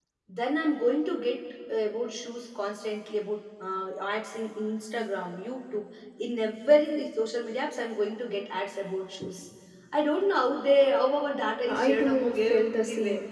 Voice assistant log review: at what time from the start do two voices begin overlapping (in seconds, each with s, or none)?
11.7 s